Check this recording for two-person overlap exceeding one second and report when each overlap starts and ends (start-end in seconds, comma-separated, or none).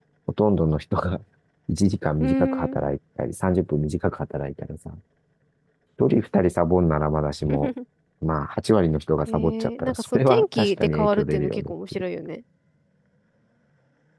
9.3-12.0